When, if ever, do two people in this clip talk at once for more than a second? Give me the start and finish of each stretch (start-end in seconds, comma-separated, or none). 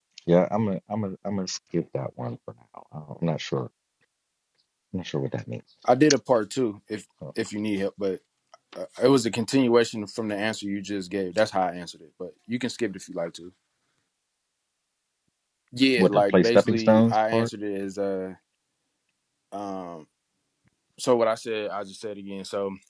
16.0-17.5